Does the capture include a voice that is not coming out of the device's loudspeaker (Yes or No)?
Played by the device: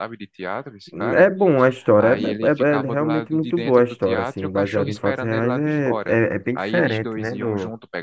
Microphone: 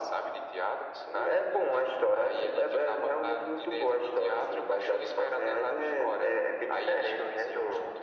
No